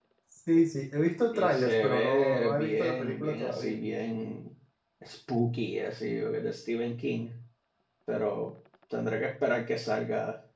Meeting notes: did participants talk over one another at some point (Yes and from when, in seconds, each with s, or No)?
Yes, from 1.3 s